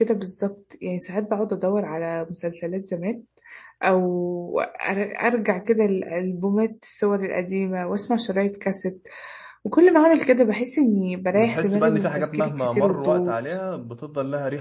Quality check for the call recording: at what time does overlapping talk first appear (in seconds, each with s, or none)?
11.3 s